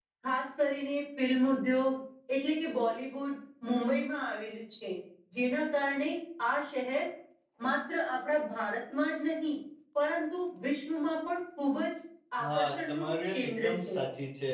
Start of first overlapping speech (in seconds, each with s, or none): 12.4 s